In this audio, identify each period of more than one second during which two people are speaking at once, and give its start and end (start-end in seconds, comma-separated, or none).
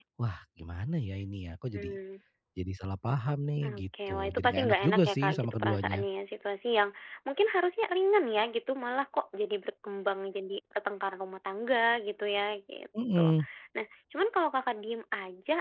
3.6-6.0